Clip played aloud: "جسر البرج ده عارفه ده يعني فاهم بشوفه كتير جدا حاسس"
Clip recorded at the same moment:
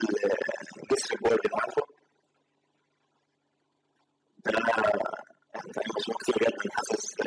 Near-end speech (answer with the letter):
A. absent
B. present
A